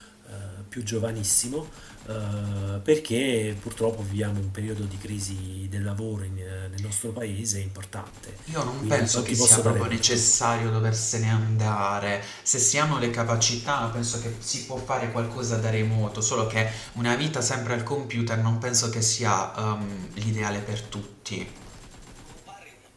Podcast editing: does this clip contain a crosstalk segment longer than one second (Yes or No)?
Yes